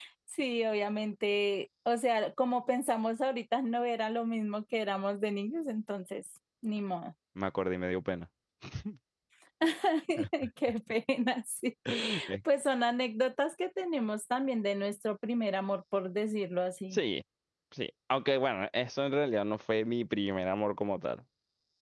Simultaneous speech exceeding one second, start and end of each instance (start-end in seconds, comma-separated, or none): none